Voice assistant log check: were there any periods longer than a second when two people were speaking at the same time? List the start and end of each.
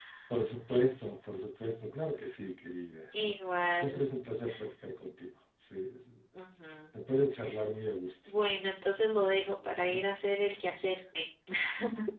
none

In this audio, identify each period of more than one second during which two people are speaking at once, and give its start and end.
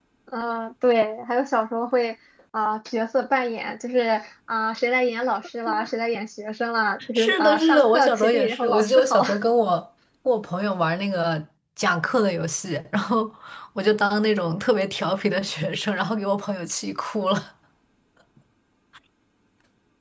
7.2-9.2

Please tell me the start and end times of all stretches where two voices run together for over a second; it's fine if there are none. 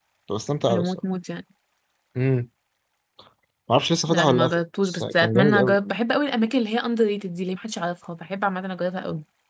4.1-5.8

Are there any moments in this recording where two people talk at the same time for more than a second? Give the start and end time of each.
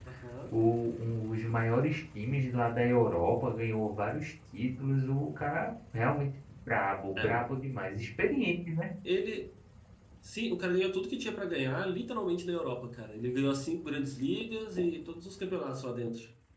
none

